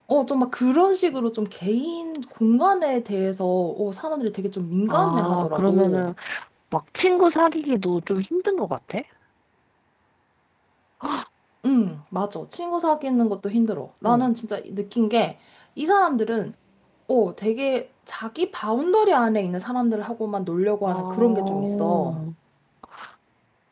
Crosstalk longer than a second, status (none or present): present